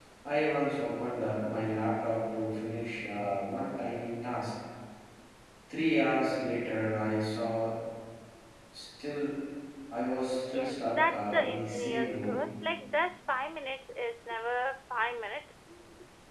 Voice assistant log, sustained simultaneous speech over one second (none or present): present